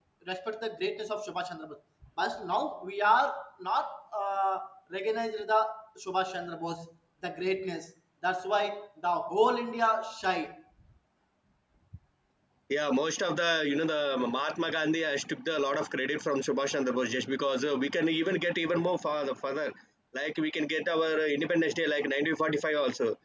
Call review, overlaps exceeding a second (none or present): none